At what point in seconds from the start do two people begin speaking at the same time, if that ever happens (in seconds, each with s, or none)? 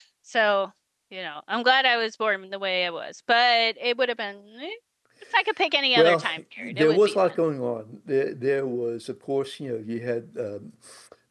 6.0 s